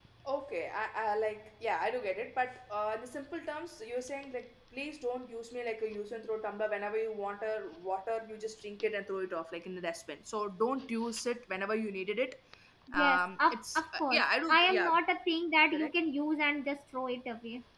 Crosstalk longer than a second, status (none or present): present